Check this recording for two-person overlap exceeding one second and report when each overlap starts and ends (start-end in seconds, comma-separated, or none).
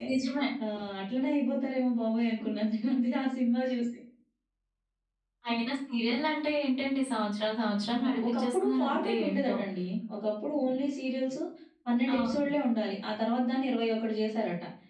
7.7-9.5